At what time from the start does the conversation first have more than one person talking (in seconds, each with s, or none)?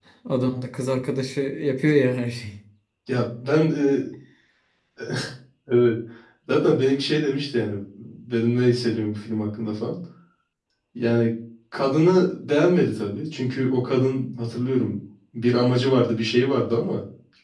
none